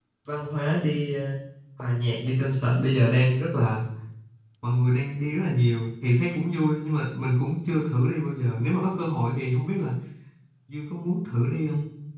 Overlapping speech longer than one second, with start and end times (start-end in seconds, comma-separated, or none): none